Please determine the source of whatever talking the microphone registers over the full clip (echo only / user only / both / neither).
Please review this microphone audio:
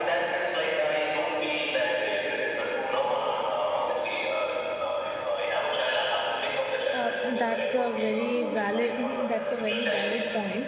both